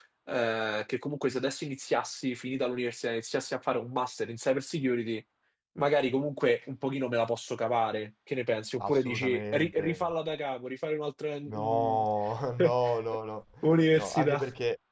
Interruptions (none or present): present